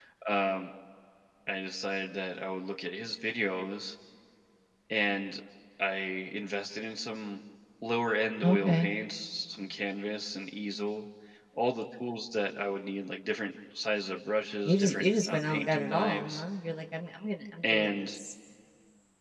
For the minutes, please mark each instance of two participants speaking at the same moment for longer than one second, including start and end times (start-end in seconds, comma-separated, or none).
14.7-16.4